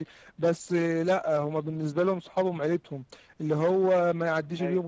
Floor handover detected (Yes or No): No